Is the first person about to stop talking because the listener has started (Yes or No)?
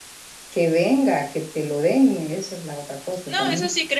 Yes